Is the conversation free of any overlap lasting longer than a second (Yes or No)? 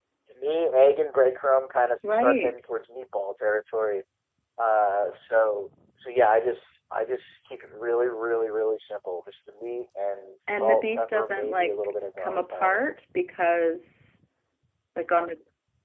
No